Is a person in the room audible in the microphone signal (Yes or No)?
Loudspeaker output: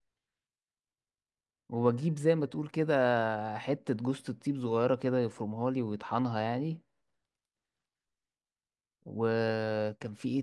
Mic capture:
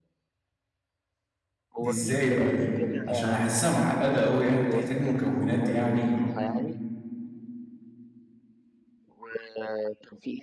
Yes